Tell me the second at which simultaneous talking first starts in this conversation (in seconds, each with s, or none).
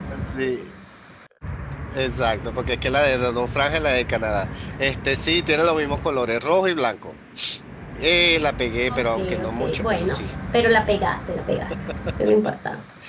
8.9 s